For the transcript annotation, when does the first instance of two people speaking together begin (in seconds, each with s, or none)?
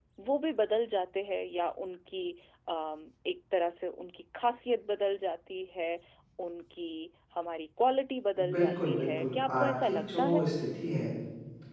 8.4 s